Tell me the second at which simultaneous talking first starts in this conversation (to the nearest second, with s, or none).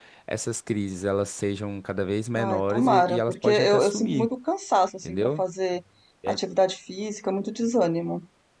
2 s